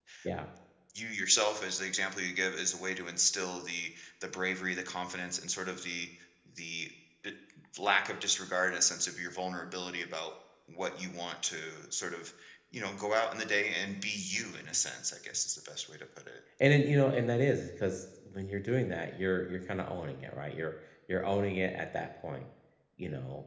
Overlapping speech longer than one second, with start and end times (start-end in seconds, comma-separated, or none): none